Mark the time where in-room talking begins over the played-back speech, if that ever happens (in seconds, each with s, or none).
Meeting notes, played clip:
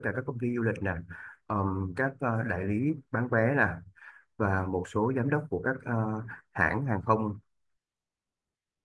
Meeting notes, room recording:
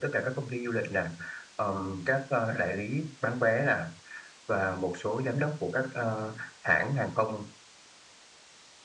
none